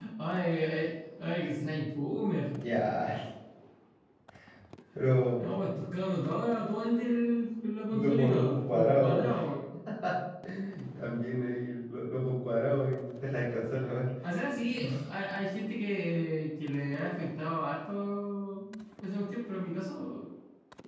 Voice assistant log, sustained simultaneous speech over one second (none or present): present